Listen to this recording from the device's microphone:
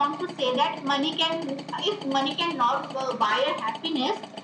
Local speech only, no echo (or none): none